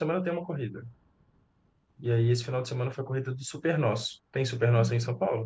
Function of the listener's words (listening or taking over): taking over